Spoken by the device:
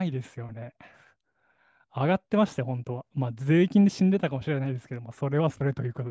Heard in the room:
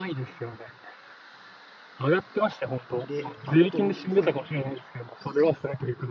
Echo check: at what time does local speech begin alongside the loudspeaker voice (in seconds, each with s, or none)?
2.9 s